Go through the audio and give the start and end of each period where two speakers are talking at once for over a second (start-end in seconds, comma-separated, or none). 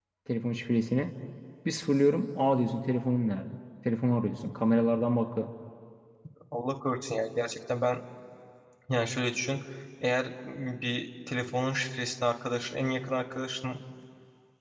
none